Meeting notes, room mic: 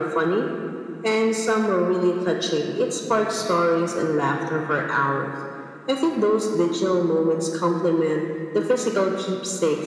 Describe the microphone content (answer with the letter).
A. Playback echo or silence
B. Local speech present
A